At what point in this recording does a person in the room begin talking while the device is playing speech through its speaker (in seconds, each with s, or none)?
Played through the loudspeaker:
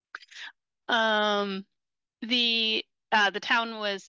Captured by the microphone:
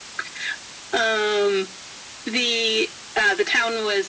none